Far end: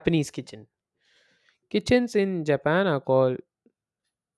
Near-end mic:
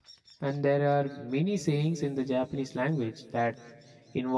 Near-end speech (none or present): present